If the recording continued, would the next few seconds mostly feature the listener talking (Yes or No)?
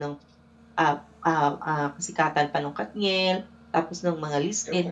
No